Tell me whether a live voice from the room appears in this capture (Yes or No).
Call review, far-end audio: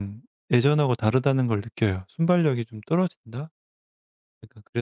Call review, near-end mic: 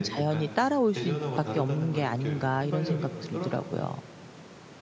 Yes